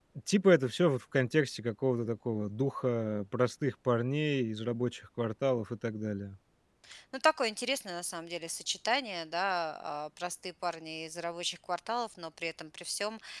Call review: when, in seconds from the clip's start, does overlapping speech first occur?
none

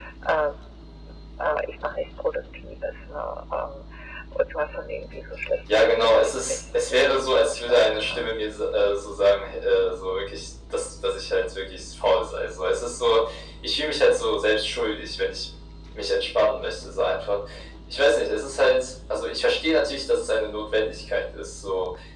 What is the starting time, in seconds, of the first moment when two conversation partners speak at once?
6 s

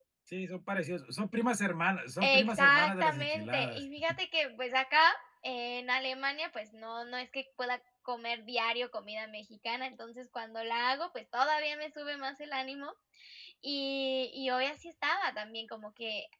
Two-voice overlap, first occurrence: 2 s

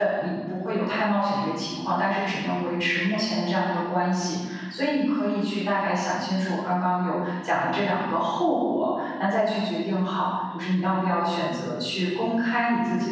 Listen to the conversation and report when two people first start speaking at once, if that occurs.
none

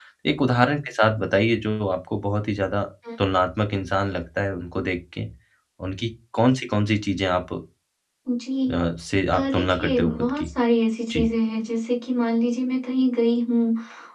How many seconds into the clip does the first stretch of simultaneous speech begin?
9 s

